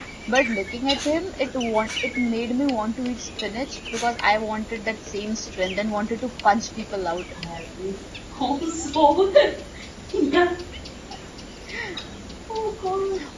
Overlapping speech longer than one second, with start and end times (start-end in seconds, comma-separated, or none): none